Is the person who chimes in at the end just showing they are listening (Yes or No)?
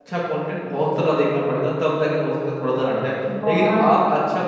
Yes